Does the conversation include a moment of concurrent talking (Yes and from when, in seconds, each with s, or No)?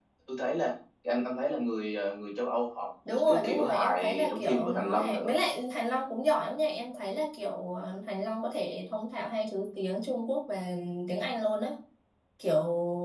Yes, from 3.0 s